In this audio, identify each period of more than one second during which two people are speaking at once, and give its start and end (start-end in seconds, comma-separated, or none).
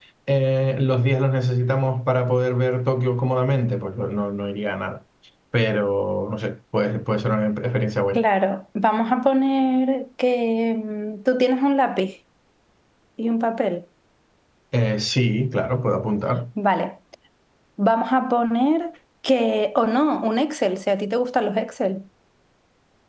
none